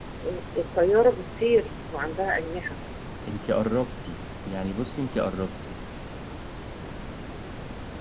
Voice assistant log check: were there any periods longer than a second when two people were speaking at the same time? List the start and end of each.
none

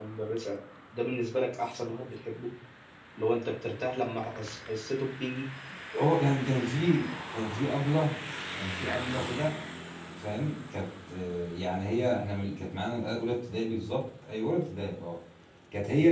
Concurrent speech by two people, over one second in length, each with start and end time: none

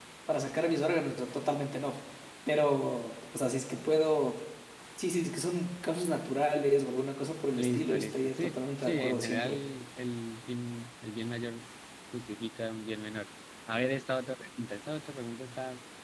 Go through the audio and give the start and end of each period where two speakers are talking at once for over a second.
7.6-9.6

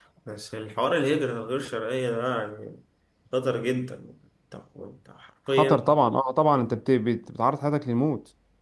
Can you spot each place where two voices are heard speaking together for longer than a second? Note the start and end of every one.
none

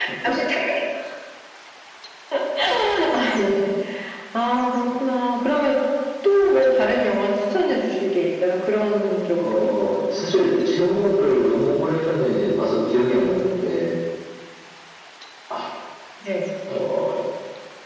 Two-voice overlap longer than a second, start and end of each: none

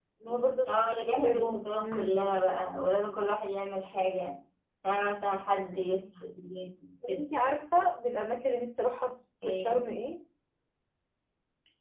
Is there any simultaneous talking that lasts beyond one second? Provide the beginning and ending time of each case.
0.7-2.2

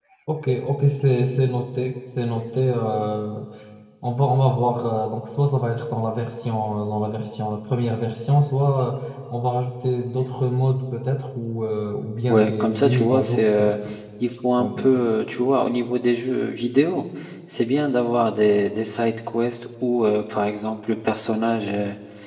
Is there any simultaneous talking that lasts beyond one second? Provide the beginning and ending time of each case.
12.3-13.8

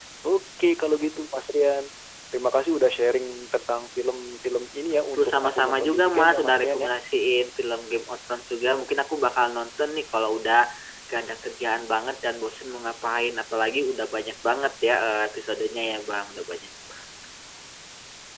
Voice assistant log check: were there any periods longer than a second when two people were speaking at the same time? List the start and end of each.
5.1-6.9

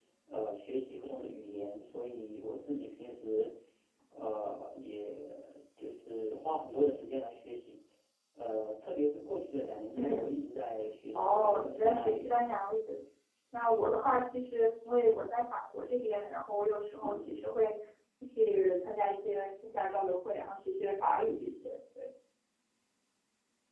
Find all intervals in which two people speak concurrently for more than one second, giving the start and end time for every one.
11.2-12.4

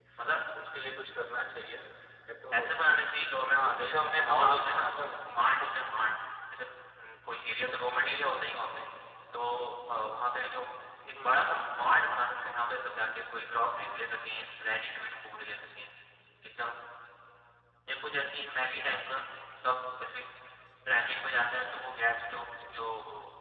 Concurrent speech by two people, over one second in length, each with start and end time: 3.5-4.9

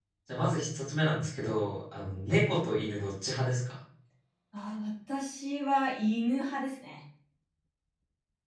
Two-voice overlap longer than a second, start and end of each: none

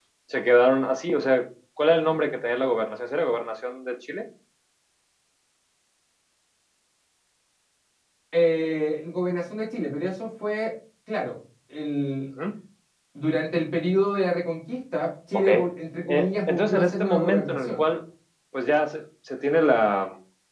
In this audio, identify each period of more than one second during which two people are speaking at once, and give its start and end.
16.1-17.8

